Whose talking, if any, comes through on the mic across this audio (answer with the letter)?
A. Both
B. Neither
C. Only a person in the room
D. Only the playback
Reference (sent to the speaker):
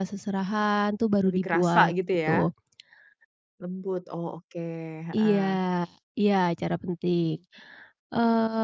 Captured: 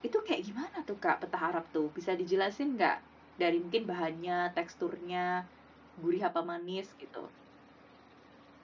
C